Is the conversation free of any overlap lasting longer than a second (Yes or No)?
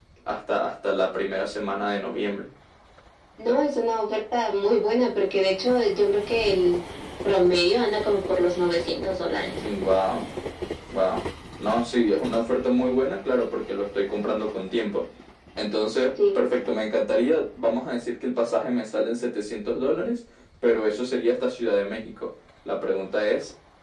Yes